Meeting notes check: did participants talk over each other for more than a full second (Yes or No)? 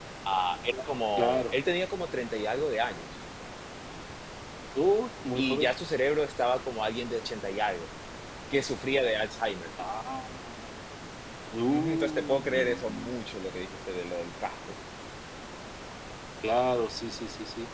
Yes